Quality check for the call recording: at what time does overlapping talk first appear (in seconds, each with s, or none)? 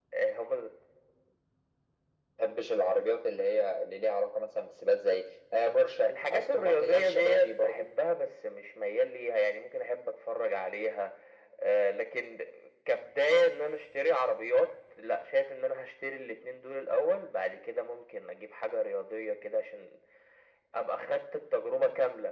6.1 s